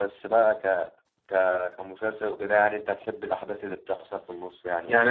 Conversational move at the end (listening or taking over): taking over